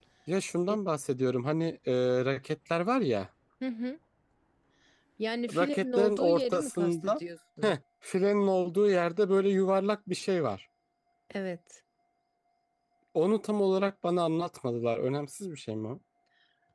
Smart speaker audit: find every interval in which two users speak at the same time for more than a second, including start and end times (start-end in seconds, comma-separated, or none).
5.6-7.2